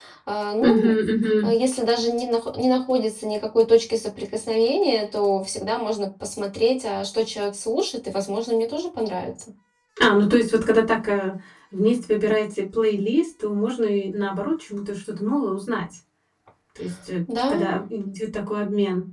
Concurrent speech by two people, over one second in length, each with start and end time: none

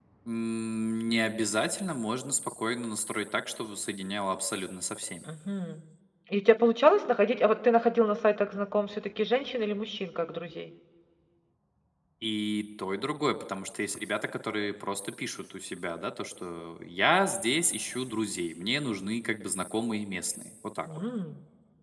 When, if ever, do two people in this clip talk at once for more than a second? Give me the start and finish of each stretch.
none

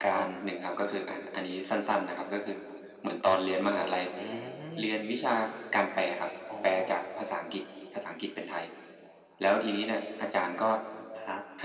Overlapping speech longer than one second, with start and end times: none

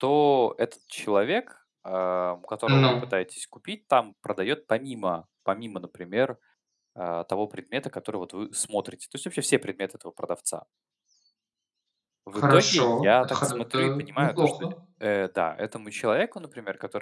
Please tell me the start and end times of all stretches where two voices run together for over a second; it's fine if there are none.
12.3-14.5

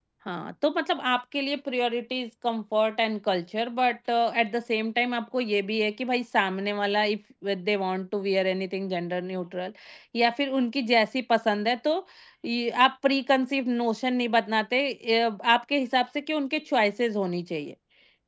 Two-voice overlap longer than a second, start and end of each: none

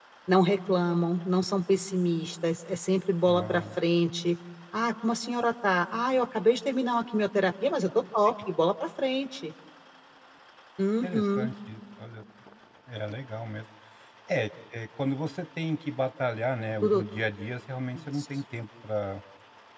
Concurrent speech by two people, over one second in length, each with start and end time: none

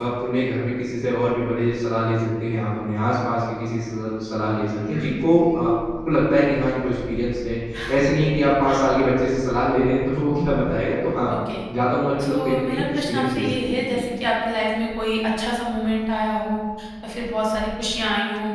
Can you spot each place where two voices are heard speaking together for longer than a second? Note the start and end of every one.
12.2-14.0

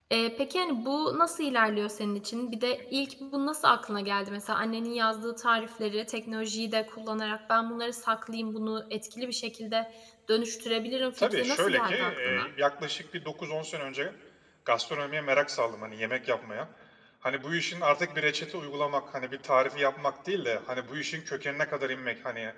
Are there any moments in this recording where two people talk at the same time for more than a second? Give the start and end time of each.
11.2-12.5

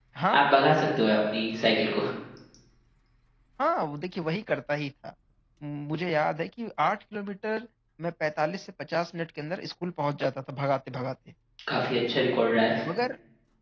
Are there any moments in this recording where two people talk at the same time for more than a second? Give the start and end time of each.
none

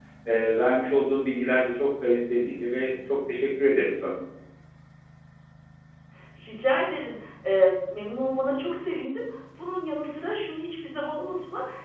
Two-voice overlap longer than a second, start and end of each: none

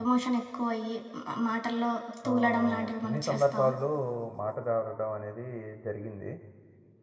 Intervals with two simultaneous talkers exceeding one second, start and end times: 2.3-3.7

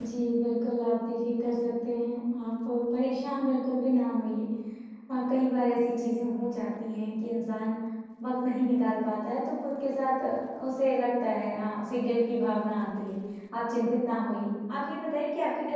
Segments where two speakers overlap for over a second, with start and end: none

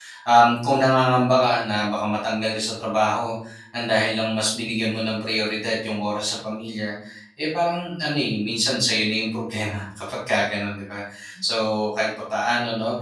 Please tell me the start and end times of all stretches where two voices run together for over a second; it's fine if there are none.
none

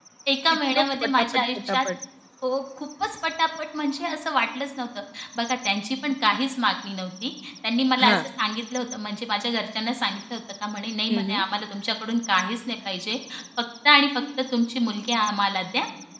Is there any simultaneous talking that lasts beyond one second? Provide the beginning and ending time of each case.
0.6-1.8

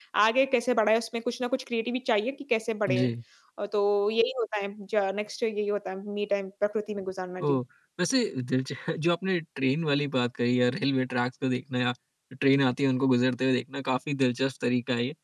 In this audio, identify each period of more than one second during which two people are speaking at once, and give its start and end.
none

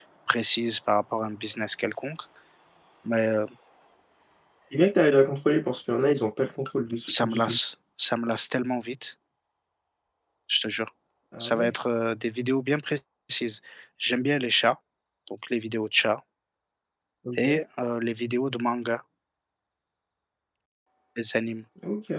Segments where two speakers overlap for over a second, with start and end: none

